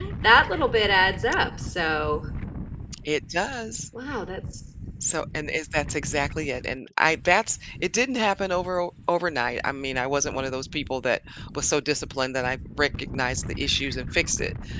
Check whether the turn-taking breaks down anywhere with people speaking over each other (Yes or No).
No